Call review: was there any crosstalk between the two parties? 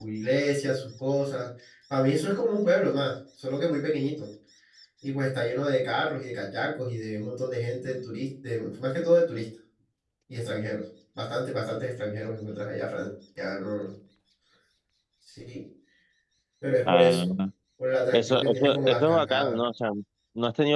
Yes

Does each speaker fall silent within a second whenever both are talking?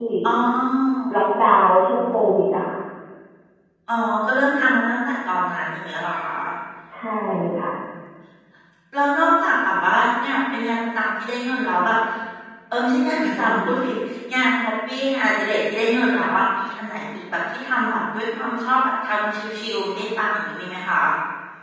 Yes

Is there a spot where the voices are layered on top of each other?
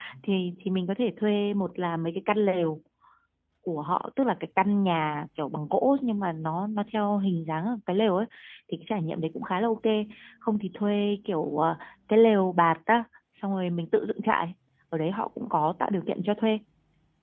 No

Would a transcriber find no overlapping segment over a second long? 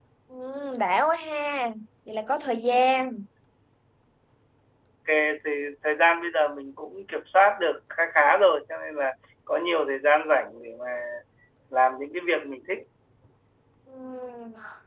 Yes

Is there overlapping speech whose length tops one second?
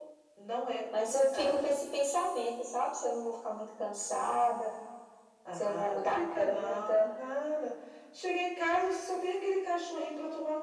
Yes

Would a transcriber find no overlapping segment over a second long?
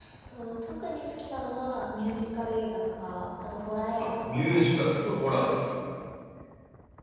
No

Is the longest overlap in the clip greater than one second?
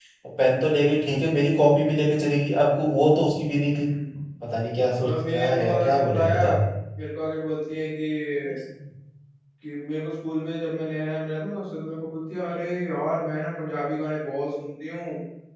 Yes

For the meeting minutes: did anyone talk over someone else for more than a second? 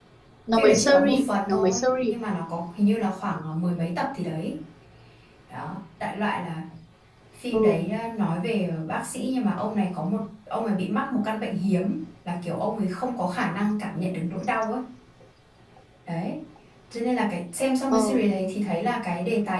Yes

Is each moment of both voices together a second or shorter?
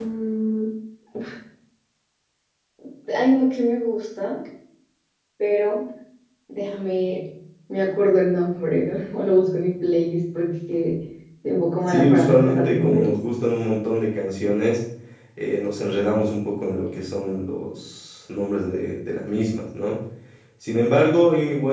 No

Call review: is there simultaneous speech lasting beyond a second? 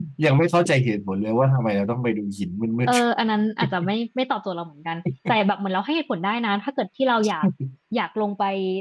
No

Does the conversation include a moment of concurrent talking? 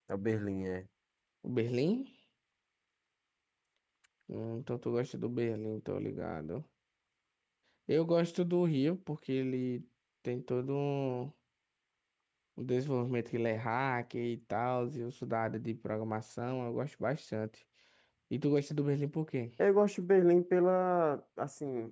No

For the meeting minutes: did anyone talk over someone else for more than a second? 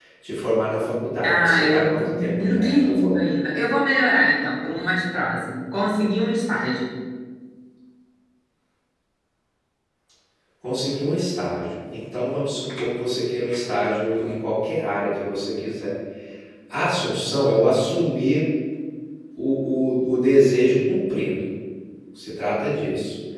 Yes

